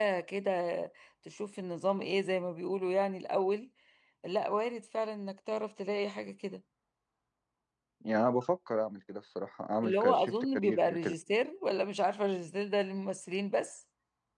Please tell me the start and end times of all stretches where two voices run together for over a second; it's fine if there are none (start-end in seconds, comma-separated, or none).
9.8-11.1